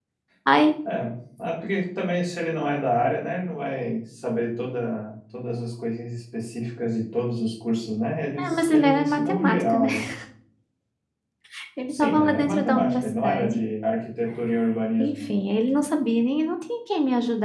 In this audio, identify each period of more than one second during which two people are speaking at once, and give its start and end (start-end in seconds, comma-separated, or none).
8.4-9.9, 11.9-13.6